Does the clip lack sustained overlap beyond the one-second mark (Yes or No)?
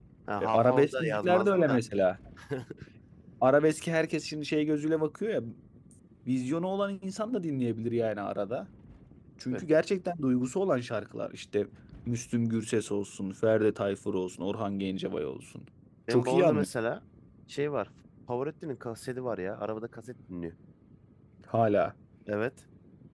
No